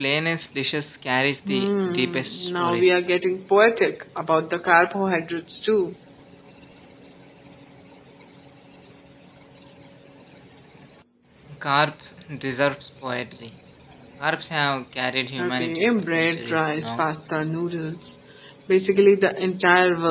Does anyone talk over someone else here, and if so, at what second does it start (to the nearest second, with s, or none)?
1 s